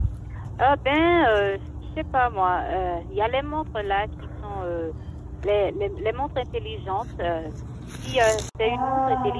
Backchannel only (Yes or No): Yes